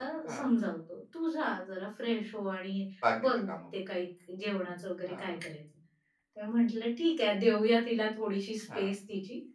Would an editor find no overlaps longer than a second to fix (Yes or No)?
Yes